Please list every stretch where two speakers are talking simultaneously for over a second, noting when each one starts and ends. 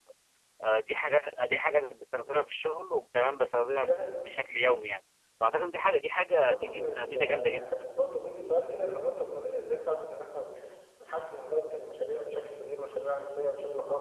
6.4-7.6

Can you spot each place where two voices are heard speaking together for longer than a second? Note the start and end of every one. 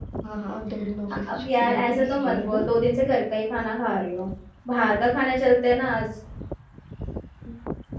1.3-2.6

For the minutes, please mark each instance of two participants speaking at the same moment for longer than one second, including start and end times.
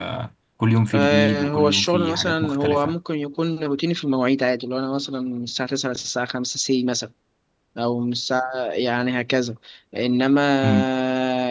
0.9-3.0

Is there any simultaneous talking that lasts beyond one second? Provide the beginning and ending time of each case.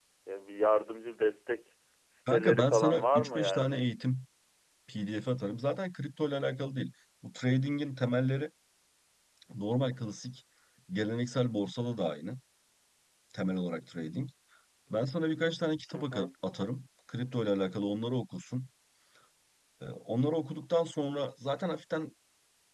2.3-3.8

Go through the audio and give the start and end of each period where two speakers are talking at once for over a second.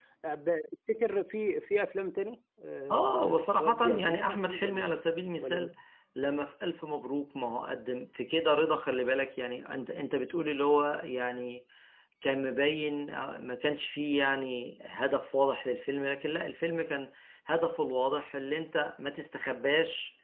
2.9-4.9

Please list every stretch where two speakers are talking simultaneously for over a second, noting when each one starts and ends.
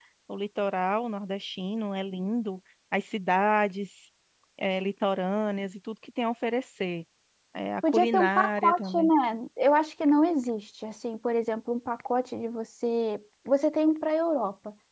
7.9-9.1

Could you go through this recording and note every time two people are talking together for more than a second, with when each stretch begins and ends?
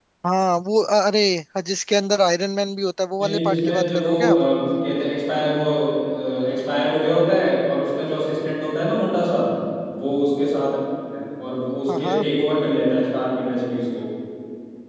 3.2-4.5

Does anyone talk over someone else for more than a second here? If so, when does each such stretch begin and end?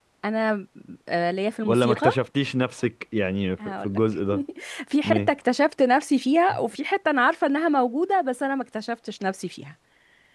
none

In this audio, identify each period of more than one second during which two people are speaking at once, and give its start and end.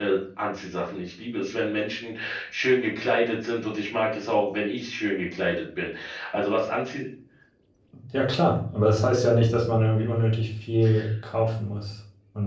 none

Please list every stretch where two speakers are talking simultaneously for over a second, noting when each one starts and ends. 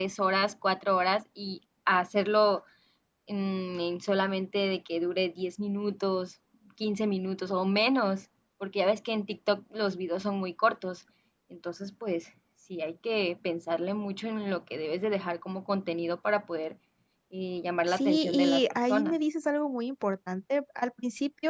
17.9-19.2

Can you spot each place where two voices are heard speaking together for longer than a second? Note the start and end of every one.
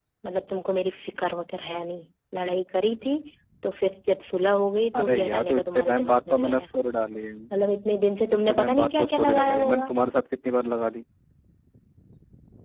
5.0-6.7, 8.3-9.9

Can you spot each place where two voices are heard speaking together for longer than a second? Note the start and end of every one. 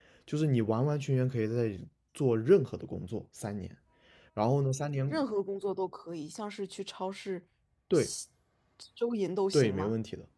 none

